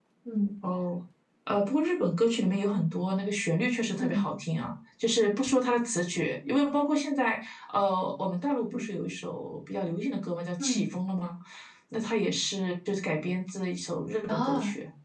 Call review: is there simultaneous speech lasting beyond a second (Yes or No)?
No